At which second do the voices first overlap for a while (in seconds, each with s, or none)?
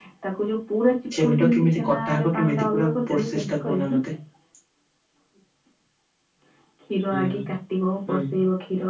1.2 s